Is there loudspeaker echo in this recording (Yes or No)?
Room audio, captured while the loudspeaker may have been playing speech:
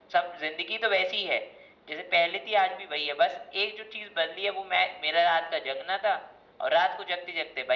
Yes